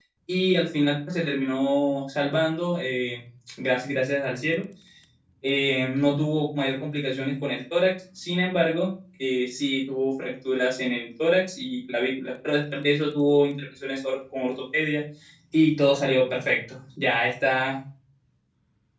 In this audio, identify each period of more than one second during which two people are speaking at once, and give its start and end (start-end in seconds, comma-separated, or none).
none